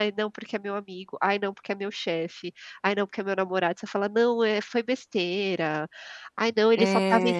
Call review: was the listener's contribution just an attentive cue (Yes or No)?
Yes